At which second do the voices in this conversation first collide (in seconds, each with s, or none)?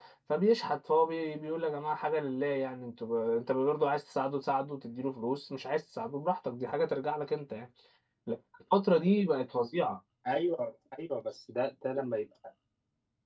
none